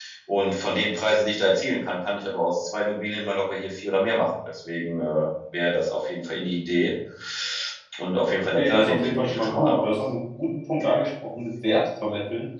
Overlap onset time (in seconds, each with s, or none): 8.6 s